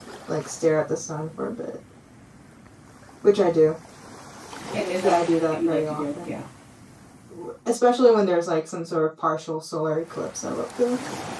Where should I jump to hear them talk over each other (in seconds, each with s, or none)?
5.0 s